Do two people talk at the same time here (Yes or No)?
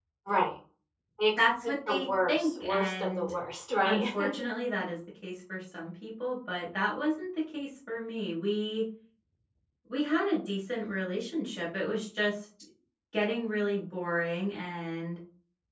Yes